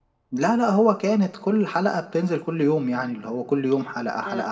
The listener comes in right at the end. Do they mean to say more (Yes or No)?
Yes